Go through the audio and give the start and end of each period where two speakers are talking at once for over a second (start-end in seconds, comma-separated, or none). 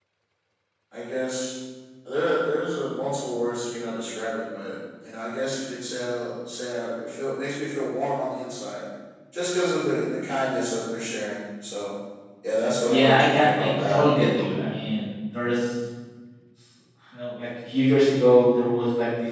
12.8-14.0